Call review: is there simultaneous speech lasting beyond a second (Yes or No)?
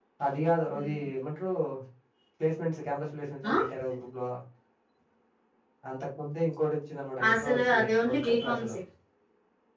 Yes